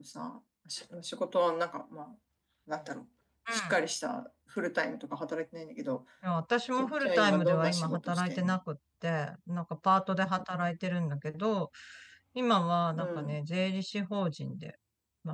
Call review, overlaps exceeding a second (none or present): present